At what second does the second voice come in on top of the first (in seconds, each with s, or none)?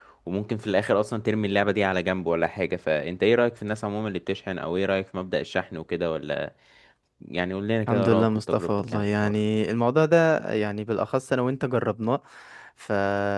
7.9 s